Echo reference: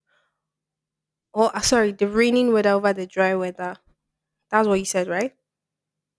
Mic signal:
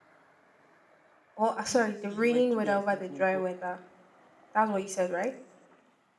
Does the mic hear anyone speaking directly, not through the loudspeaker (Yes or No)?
Yes